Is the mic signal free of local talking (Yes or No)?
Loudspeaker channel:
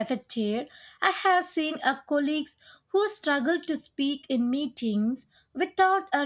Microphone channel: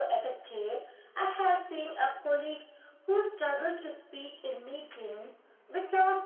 Yes